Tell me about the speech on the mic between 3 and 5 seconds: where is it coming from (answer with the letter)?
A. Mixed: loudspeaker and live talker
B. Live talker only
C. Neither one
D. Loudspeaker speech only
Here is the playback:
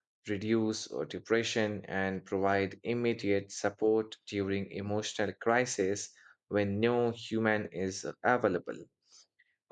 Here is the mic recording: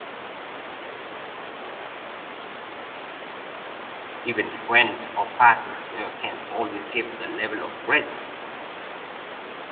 B